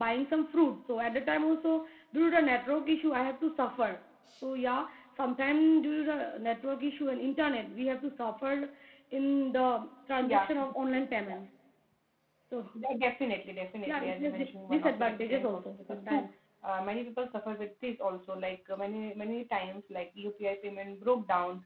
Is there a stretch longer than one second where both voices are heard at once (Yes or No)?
Yes